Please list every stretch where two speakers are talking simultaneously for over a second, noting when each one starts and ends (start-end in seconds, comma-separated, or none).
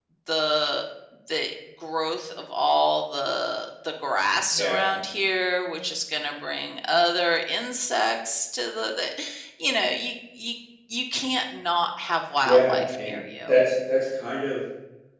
12.4-13.7